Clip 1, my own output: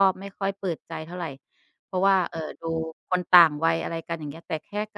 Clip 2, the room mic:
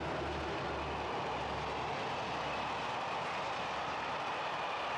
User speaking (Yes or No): No